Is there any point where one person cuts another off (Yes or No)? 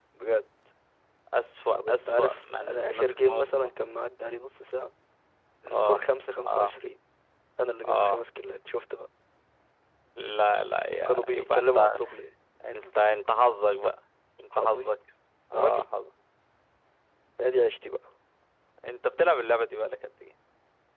Yes